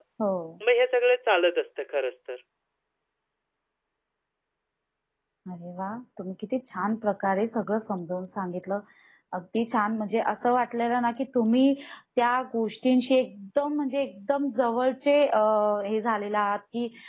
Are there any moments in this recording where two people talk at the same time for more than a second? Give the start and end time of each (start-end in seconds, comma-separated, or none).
none